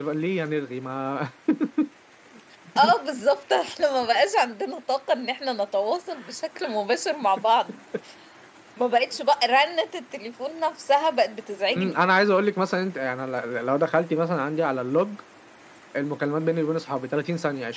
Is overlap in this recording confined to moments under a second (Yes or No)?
Yes